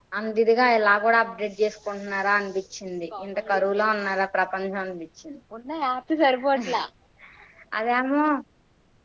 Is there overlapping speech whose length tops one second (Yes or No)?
No